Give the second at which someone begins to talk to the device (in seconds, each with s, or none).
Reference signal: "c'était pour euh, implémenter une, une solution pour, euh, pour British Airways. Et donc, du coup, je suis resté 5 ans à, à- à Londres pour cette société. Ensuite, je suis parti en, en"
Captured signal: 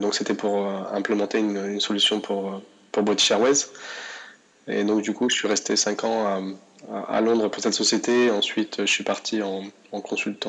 none